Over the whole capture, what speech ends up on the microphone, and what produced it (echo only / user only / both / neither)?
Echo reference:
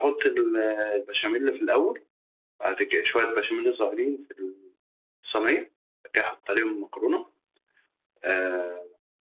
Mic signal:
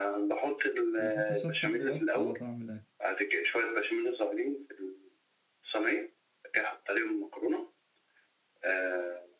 both